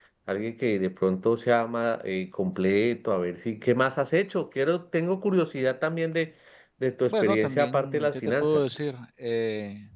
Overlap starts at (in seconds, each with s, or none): 7.1 s